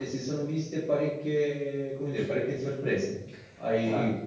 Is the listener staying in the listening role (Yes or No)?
Yes